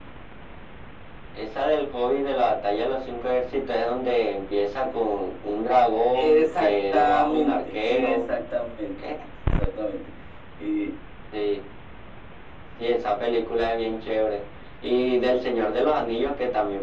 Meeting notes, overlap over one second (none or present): present